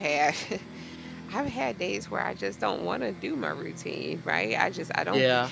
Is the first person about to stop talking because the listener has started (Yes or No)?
No